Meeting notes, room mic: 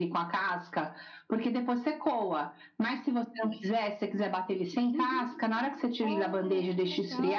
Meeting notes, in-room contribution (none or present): present